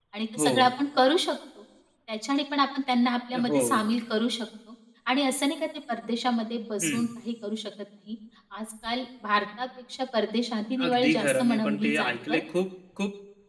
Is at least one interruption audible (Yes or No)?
Yes